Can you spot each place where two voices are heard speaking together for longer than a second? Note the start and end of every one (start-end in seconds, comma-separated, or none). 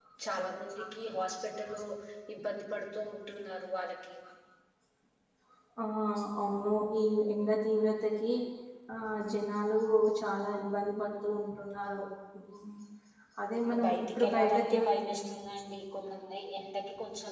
13.7-14.9